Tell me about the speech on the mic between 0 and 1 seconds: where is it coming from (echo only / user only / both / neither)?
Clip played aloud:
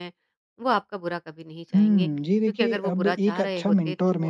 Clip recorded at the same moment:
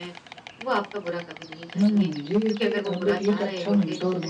echo only